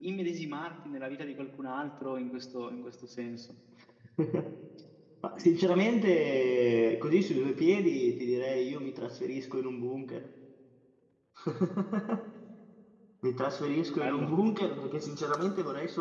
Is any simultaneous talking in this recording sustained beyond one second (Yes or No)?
No